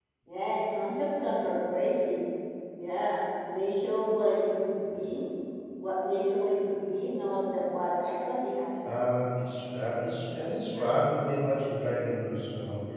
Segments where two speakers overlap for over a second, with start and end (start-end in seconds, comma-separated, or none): none